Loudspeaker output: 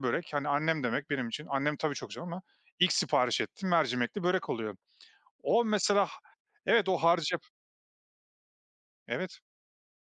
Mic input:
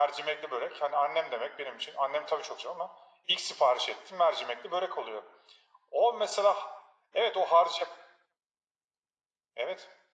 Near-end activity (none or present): none